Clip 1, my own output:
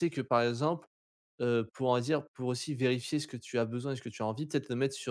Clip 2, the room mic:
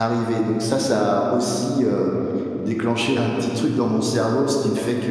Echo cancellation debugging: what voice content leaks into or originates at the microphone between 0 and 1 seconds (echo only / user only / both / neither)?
user only